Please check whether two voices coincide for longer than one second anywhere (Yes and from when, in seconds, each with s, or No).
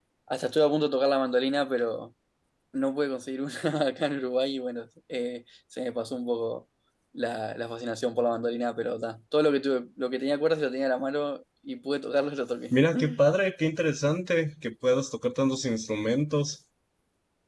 No